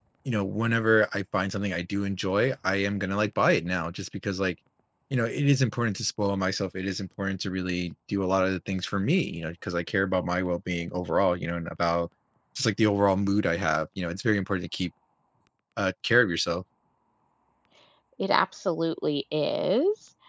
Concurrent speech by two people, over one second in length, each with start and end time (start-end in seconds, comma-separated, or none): none